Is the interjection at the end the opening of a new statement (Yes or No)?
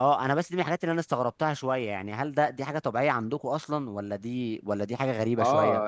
Yes